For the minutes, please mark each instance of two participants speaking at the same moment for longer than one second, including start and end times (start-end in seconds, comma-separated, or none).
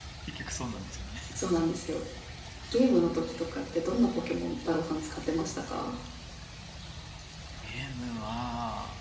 none